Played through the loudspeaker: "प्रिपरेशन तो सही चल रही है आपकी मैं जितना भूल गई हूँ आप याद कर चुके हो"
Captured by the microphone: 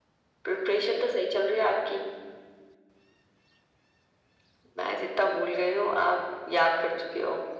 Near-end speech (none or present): none